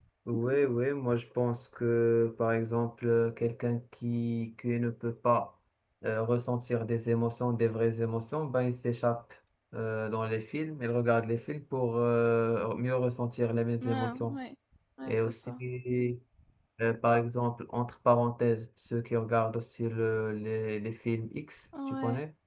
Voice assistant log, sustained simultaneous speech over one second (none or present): none